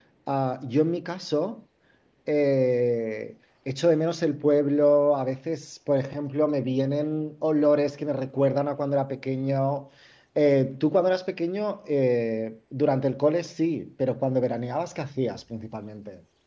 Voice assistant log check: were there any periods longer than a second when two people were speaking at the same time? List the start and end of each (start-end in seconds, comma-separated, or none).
none